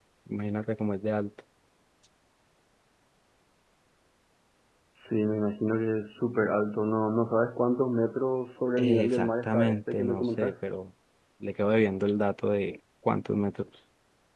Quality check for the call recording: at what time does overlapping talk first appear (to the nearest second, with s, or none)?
9 s